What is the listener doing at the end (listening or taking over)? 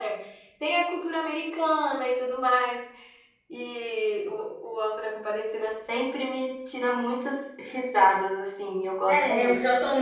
taking over